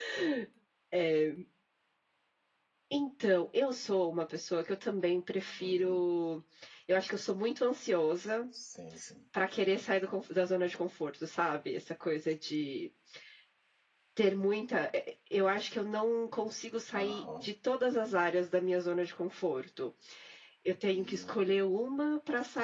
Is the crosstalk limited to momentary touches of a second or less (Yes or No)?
Yes